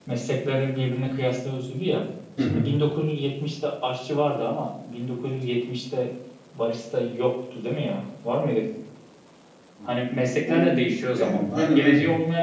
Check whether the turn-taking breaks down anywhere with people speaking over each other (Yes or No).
Yes